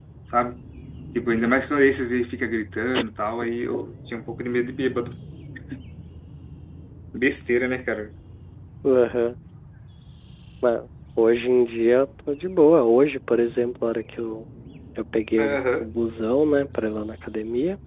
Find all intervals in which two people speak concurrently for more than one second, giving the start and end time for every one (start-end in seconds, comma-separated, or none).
none